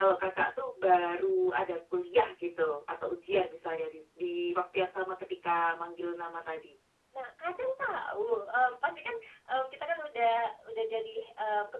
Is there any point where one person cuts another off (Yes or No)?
No